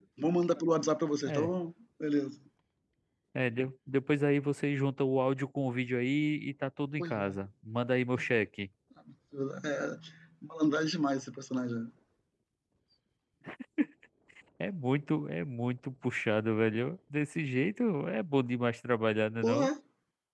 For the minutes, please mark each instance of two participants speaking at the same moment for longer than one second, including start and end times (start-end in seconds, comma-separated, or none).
none